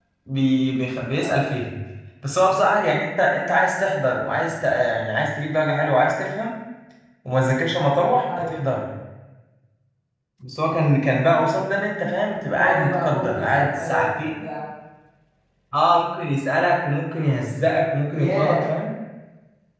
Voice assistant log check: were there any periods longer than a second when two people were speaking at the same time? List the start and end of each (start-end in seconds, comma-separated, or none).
12.4-14.3